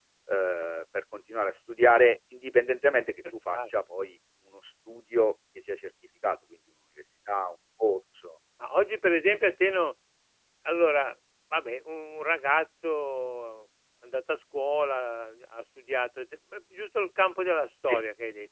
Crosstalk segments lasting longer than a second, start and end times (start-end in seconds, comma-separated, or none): none